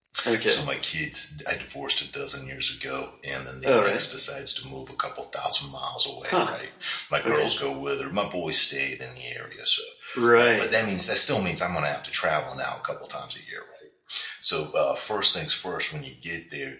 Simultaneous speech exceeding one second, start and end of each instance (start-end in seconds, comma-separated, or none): none